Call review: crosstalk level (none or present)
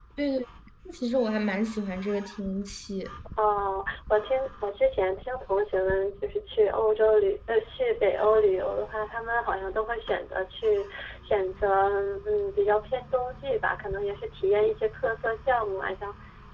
none